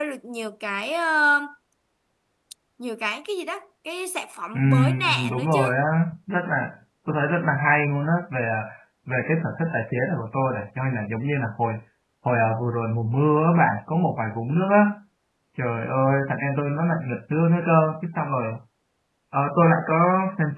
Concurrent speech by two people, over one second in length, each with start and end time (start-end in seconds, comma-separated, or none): 4.5-5.8